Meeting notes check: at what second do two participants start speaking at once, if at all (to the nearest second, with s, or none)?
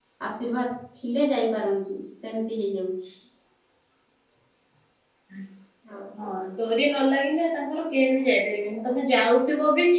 none